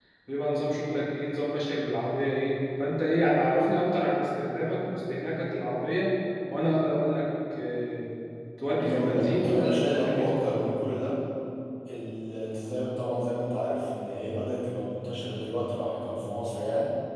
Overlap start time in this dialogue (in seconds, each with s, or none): 8.7 s